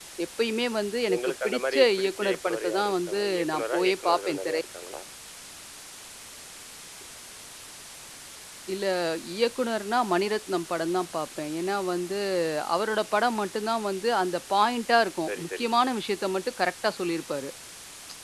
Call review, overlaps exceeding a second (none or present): present